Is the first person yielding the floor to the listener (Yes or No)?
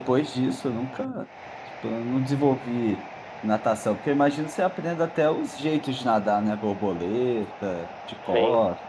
Yes